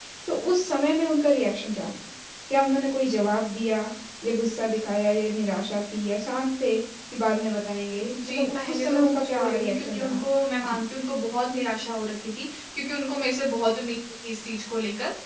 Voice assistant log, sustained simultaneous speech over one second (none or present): present